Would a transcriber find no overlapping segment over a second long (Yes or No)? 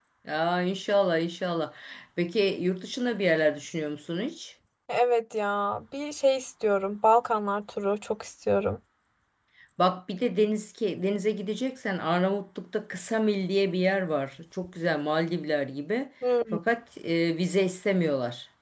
Yes